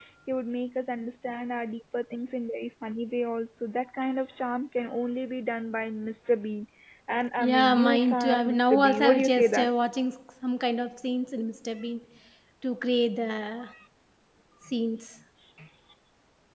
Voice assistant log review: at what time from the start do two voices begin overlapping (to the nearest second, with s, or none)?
7 s